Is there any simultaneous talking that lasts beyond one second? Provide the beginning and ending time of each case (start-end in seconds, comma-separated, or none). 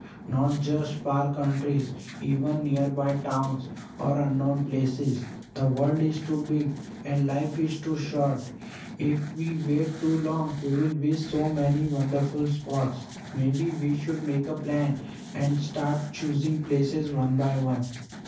none